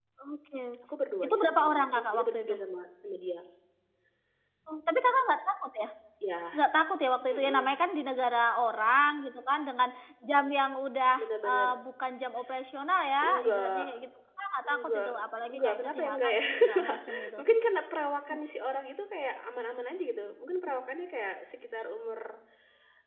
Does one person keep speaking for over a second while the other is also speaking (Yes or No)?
Yes